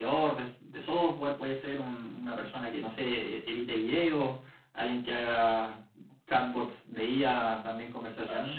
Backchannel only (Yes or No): Yes